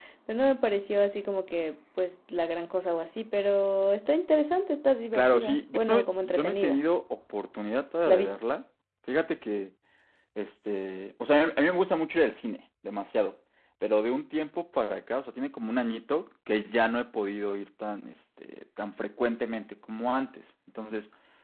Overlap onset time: 5.1 s

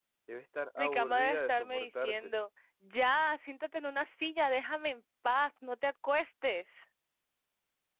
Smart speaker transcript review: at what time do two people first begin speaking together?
0.8 s

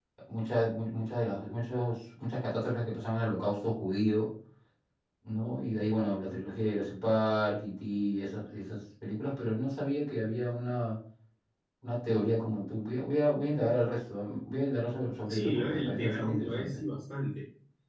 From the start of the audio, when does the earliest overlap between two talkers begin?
15.3 s

